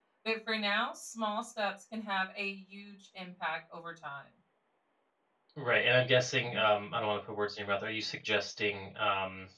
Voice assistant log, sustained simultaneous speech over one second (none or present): none